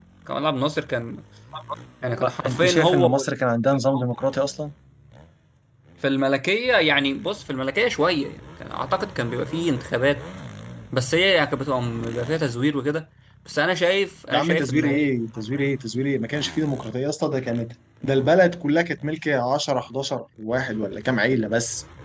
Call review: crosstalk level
present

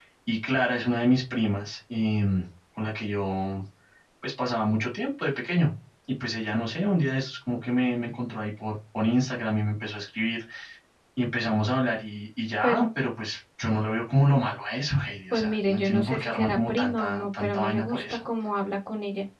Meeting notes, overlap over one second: present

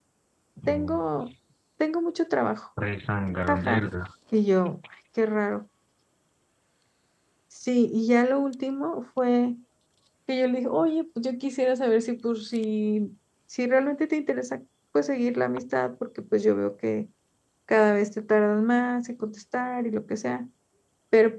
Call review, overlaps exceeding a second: none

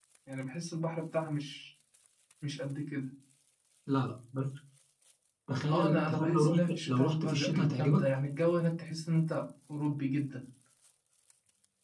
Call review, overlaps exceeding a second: present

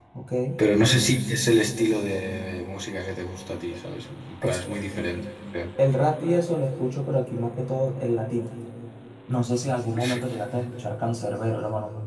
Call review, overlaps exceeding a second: none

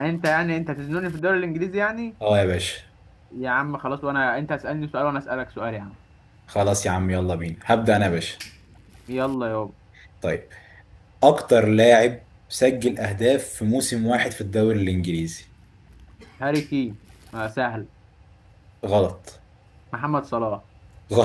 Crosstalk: none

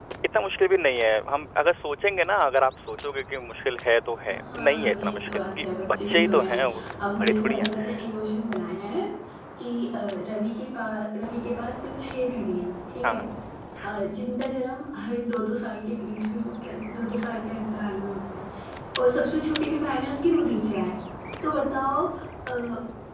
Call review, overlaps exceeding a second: present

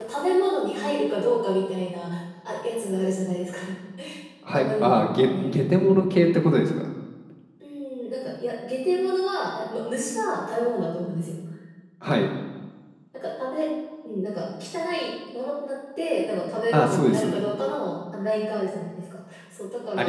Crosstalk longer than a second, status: present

